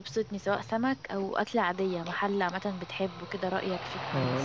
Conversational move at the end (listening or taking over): taking over